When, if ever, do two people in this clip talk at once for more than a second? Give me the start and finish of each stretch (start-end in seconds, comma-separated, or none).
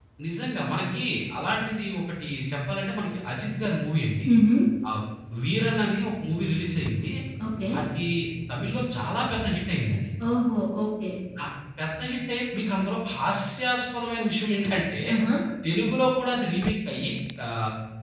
none